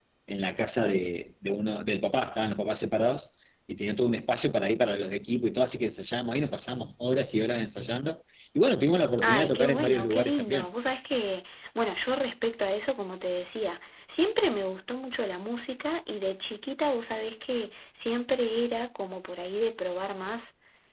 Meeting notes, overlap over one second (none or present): present